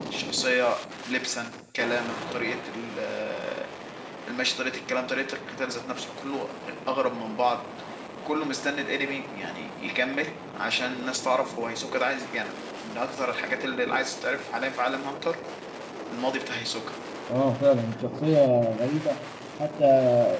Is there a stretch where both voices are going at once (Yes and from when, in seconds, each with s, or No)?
No